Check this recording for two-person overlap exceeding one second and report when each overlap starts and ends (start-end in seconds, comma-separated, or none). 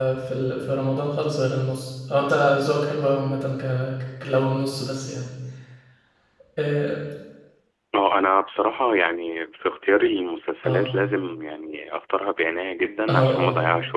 none